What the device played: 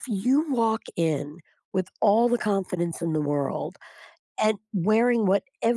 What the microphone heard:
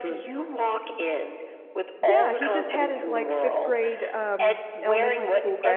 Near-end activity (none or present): present